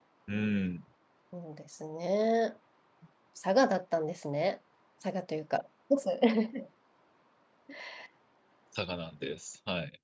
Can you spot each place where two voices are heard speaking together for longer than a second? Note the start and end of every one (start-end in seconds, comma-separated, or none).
none